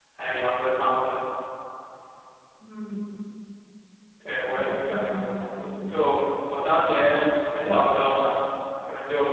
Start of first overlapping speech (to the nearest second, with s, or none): 4 s